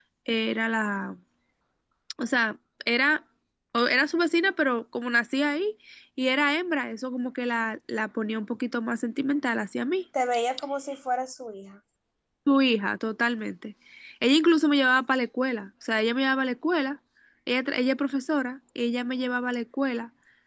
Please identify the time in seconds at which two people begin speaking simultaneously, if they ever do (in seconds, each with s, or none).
none